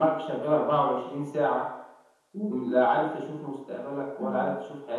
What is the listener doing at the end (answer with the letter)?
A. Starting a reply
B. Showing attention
A